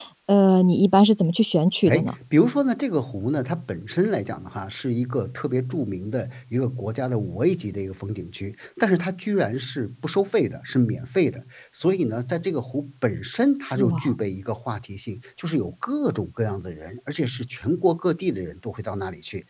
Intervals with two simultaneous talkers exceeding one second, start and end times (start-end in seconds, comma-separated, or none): none